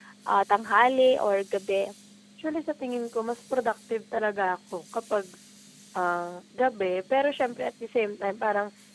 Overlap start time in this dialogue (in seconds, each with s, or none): none